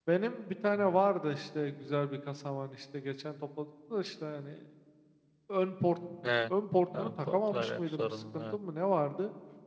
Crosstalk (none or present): present